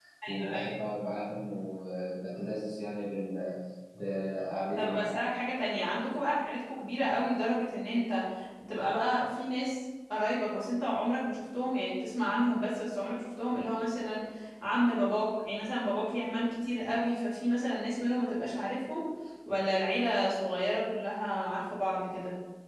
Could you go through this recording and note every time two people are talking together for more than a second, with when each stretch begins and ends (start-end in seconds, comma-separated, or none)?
none